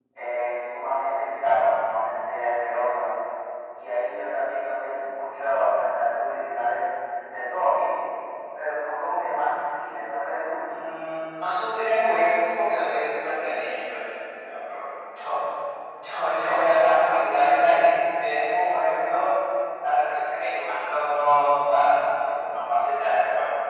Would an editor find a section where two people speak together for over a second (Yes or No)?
No